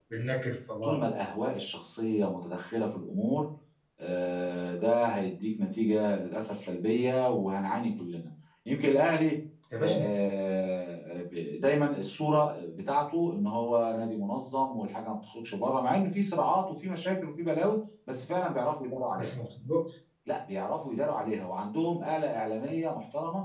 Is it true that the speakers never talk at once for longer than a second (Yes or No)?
Yes